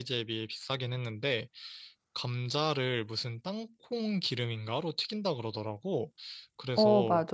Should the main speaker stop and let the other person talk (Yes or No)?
No